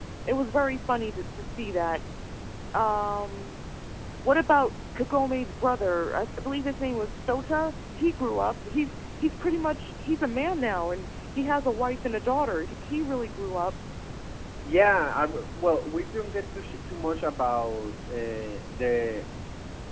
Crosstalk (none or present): none